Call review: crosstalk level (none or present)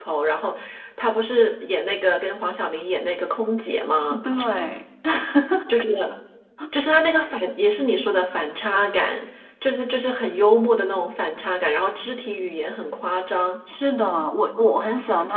none